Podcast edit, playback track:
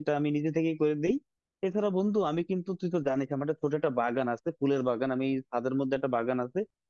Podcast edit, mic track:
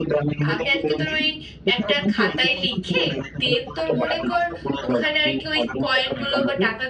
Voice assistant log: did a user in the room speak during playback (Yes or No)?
Yes